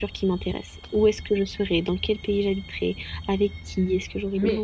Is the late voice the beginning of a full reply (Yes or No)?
Yes